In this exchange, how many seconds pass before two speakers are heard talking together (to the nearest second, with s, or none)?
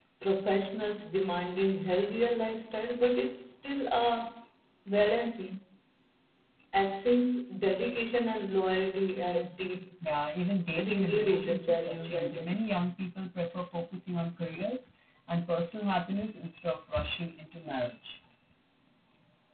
11 s